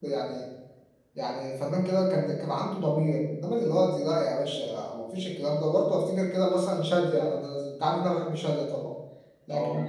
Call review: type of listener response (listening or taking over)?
listening